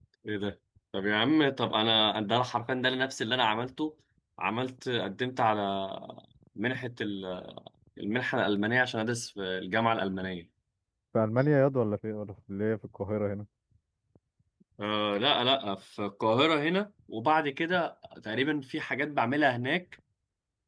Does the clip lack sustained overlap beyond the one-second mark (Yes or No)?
Yes